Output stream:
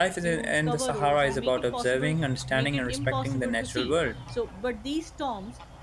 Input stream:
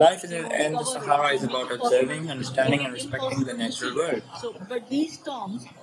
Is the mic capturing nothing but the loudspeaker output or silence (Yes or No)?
Yes